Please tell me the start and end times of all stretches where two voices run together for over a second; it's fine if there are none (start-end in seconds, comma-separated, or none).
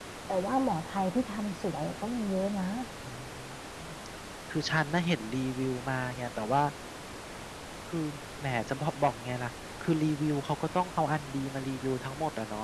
none